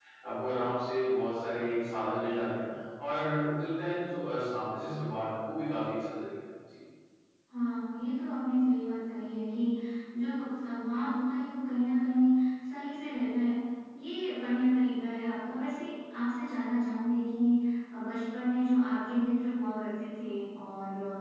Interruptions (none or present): none